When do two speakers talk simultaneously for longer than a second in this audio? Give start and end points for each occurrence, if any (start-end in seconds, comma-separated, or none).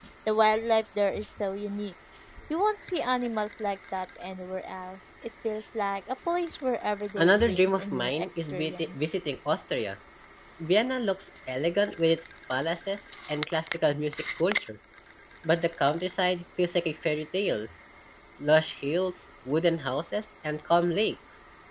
7.2-9.2